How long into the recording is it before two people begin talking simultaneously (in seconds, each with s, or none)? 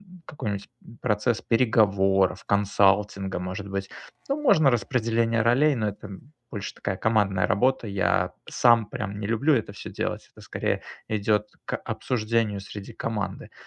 none